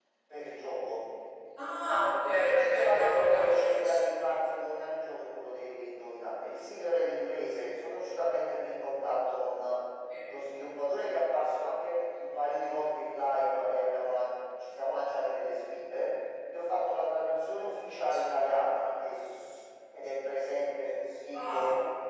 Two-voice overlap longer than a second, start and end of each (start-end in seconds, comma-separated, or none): 2.2-4.5